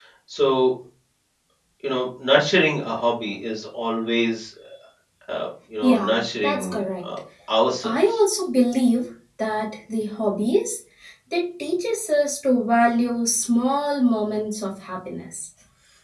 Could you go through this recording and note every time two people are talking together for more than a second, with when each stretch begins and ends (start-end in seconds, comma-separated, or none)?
5.8-7.1